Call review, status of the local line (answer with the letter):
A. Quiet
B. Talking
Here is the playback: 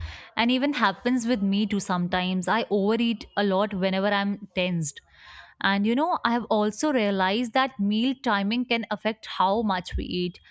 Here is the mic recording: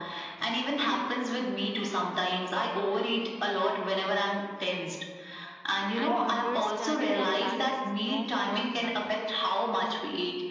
B